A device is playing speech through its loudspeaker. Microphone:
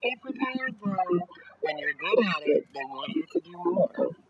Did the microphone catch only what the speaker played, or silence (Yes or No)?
Yes